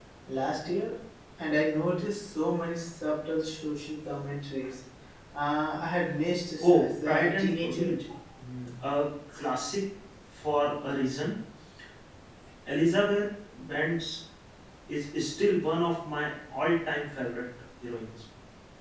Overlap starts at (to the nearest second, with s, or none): 7 s